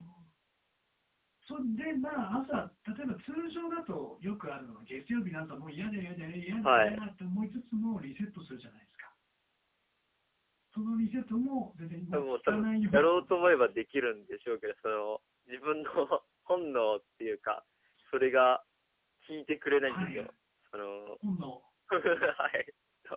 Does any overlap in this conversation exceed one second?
Yes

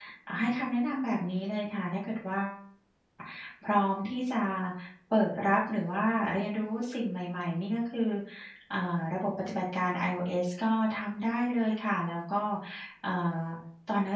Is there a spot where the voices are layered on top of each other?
No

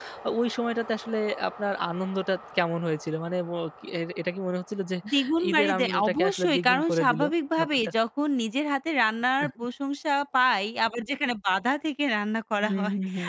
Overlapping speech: Yes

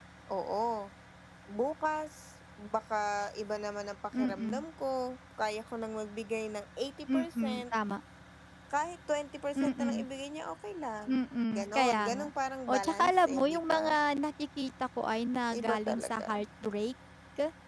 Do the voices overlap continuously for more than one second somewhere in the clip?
Yes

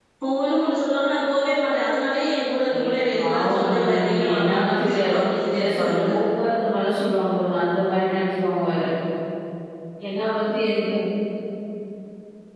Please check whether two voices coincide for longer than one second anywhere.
Yes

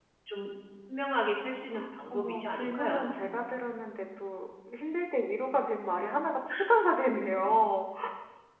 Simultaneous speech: Yes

